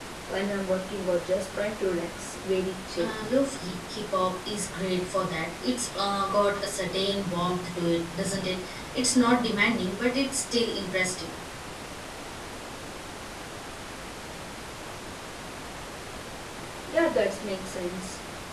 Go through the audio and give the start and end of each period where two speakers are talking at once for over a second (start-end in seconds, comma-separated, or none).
none